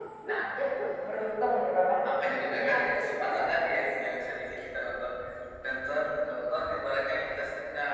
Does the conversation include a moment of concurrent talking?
Yes, from 2.3 s

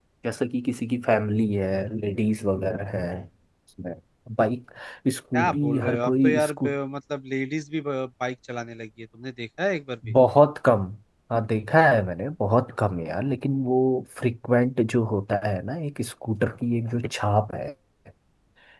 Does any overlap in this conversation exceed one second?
Yes, from 5.3 s

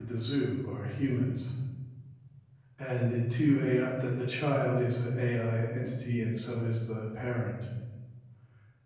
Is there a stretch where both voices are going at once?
No

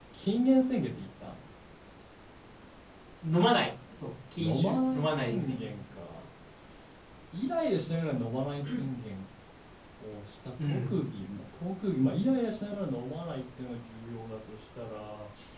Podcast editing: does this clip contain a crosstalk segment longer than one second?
Yes, from 4.4 s

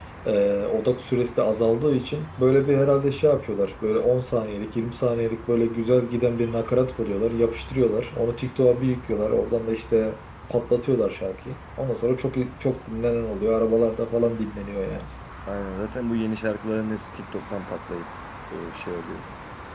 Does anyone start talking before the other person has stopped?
No

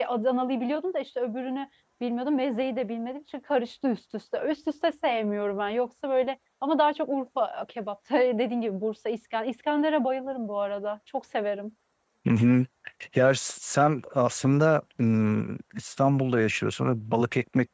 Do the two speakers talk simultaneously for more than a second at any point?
No

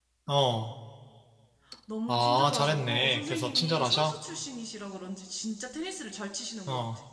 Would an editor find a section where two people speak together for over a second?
Yes, from 2.1 s

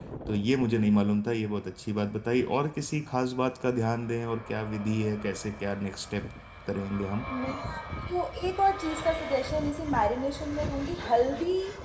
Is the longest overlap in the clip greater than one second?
No

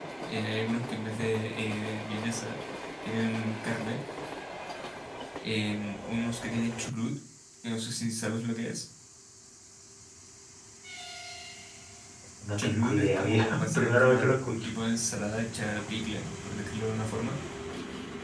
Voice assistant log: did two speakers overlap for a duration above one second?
Yes, from 12.6 s

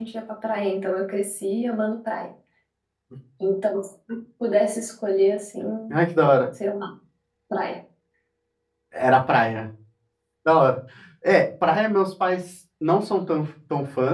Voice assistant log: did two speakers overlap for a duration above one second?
No

